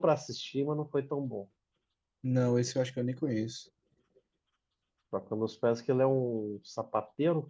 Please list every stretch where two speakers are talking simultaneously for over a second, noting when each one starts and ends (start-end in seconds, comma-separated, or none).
none